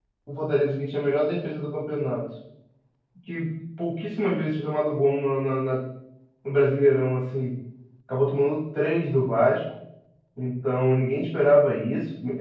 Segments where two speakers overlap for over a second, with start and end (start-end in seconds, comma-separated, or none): none